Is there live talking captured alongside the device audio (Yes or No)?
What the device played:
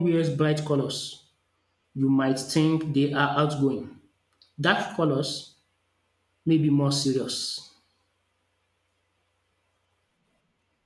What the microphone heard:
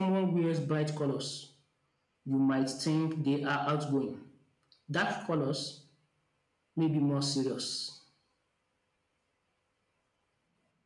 No